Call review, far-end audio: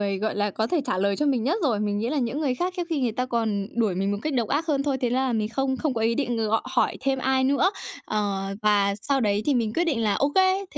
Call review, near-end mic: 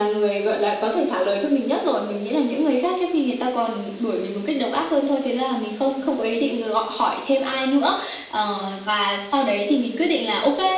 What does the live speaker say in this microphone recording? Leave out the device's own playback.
none

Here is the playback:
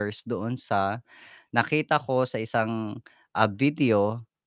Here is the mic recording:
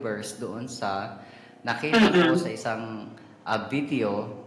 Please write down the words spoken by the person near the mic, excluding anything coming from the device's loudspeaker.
Mm.

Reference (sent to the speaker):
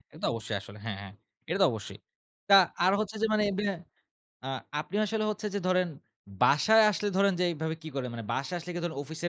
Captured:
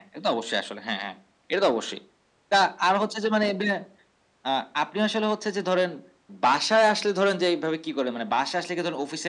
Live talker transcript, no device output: none

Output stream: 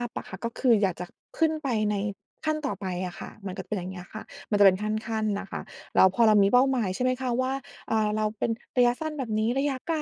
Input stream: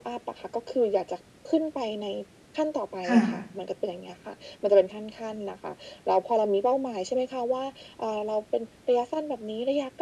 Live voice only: ค่ะ

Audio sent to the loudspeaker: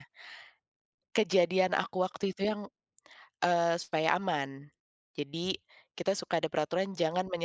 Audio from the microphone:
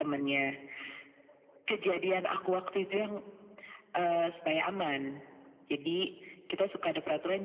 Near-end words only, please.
none

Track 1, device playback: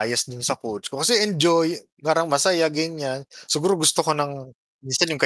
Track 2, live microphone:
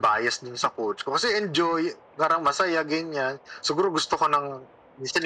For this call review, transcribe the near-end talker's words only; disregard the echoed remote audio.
none

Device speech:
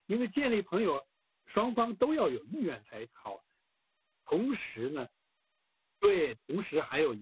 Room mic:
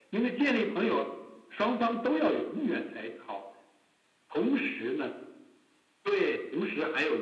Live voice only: none

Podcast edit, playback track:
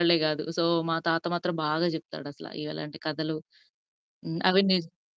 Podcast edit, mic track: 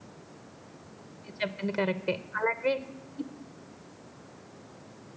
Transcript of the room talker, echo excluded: మీరు చెప్పింది కరెక్టే. అలాగే హ్మ్.

